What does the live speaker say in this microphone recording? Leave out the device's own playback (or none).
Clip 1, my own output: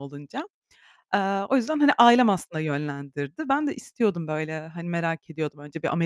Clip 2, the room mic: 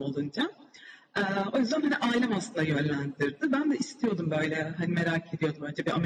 none